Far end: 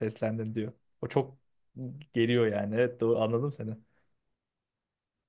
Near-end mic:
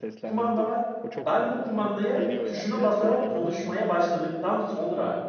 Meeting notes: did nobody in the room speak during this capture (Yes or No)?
No